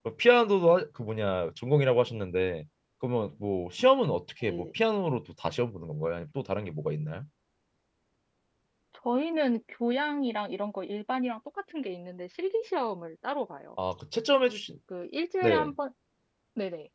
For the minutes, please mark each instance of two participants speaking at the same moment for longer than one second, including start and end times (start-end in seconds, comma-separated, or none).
none